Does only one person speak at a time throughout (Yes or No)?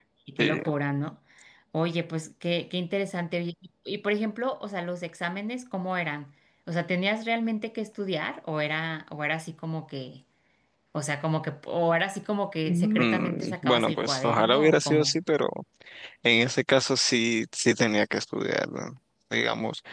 No